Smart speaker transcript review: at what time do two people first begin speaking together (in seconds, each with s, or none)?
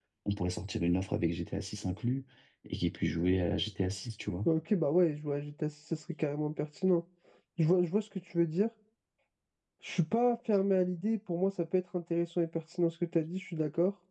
none